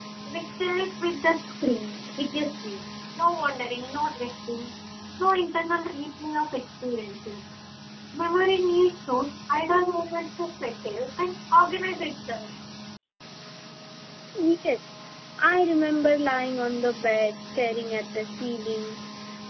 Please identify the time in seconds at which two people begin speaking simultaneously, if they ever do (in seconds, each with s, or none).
none